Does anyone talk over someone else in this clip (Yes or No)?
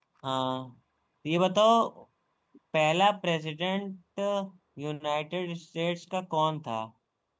No